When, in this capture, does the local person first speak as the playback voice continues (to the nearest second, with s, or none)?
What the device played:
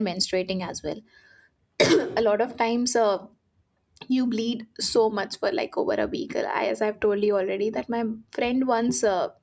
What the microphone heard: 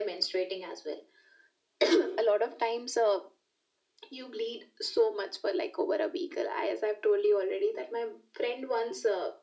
none